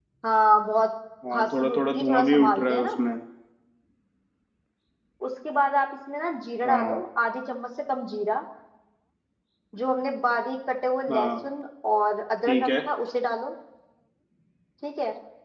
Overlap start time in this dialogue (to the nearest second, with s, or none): 1 s